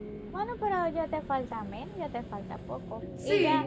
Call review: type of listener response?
listening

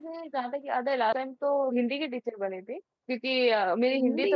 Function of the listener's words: listening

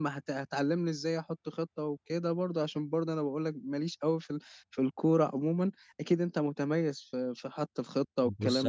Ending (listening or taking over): taking over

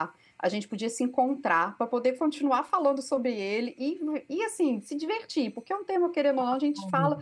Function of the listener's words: listening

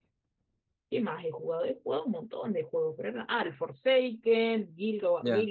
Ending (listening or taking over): listening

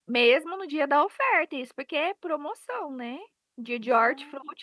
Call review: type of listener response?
listening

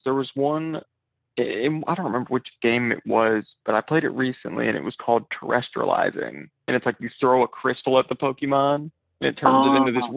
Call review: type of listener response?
listening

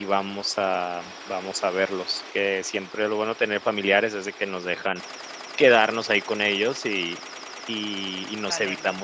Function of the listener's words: listening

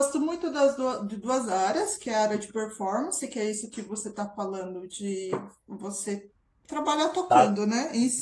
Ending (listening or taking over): listening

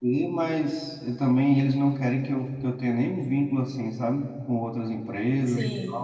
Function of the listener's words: listening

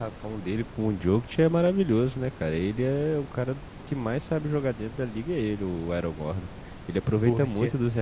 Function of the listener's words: listening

